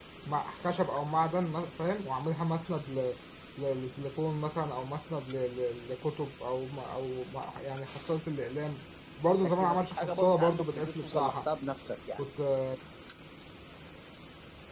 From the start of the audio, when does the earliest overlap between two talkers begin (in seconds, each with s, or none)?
9.4 s